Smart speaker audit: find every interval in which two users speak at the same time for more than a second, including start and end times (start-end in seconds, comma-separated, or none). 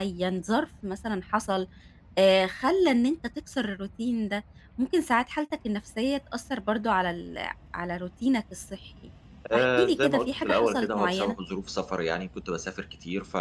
9.5-11.4